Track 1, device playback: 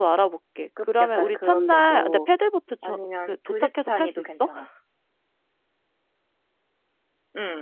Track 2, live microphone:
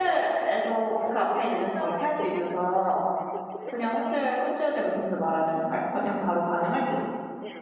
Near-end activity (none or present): present